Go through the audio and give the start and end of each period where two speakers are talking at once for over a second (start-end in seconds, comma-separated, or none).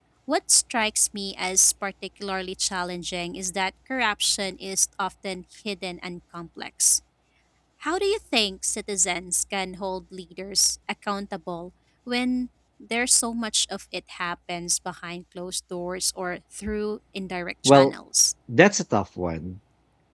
none